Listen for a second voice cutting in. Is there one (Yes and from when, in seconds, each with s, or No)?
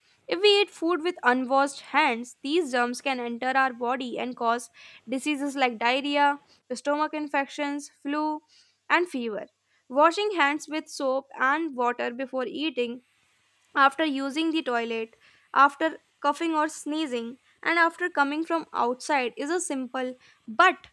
No